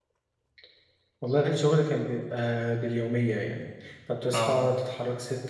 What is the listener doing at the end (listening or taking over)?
listening